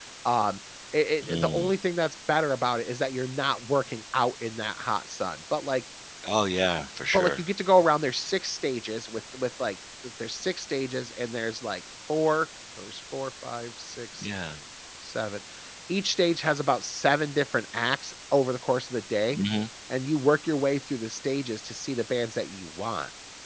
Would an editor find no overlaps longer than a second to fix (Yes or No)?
Yes